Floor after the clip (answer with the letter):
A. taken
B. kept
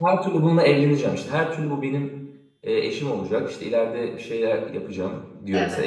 B